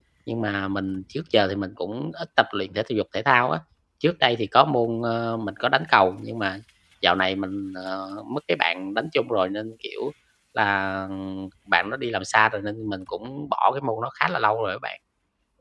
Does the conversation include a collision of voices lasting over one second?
No

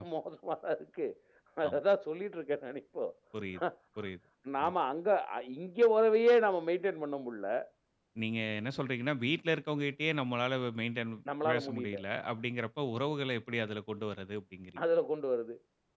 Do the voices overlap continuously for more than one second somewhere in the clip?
No

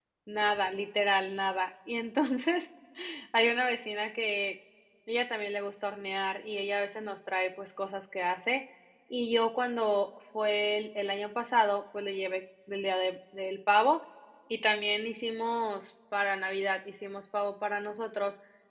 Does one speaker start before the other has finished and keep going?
No

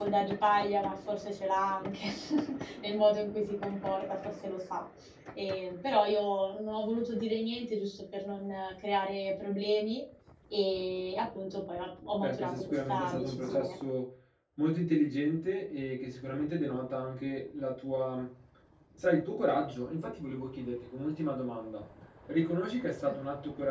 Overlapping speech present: Yes, from 12.2 s

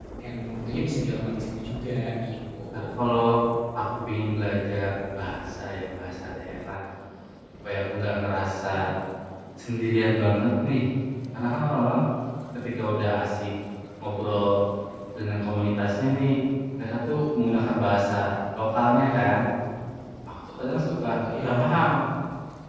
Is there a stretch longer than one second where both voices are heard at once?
No

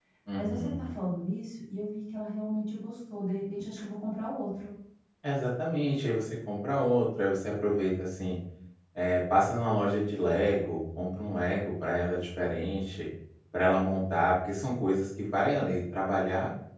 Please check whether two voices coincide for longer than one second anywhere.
No

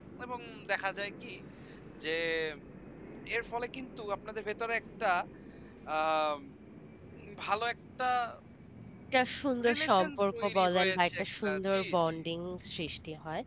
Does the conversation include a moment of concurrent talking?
Yes, from 9.7 s

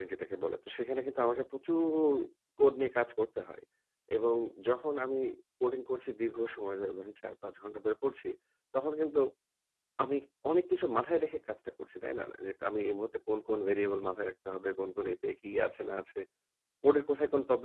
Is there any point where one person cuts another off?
No

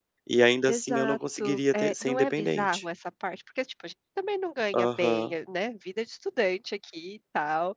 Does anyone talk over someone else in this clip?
Yes, from 0.7 s

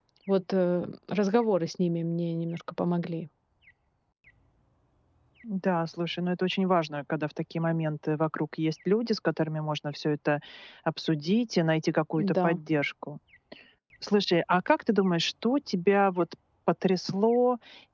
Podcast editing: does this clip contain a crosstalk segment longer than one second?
No

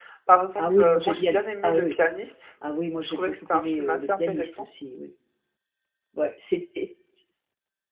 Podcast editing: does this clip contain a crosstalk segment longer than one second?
Yes, from 0.6 s

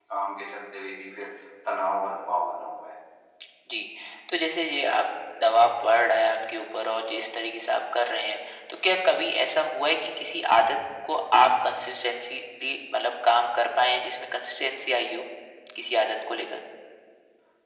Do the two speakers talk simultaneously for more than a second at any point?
No

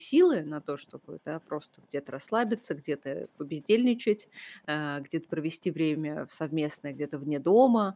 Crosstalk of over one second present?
No

